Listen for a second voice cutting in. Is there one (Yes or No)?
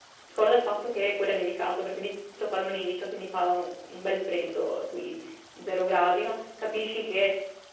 No